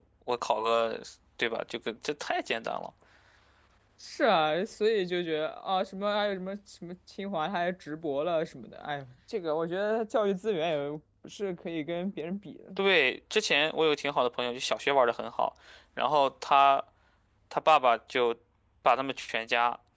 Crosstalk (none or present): none